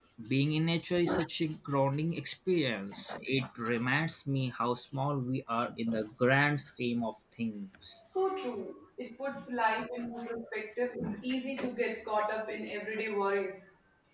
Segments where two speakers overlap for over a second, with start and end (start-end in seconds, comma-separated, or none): none